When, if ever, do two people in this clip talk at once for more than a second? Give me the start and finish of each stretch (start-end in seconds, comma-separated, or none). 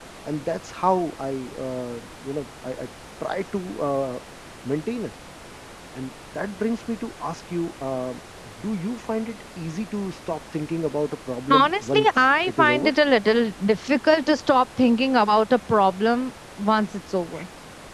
11.5-12.9